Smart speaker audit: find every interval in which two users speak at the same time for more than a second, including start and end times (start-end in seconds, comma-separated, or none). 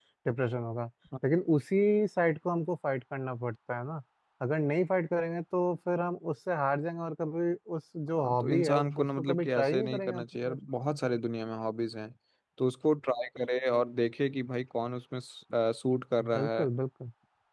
8.2-10.6